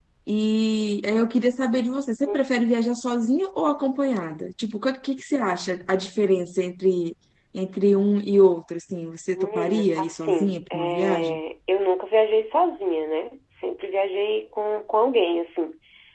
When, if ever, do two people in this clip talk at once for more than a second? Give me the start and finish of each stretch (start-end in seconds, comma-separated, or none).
9.4-11.4